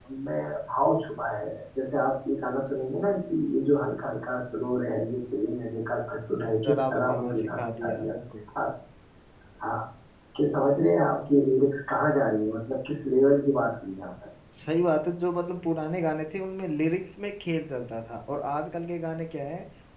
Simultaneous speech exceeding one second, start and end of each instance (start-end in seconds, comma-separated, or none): 6.7-8.1